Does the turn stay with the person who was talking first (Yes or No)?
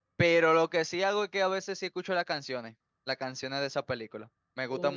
No